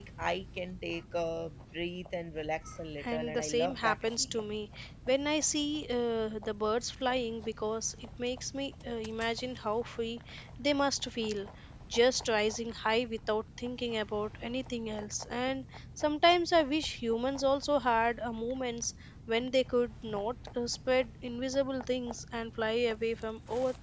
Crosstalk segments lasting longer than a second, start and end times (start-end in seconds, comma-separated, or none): 3.0-4.5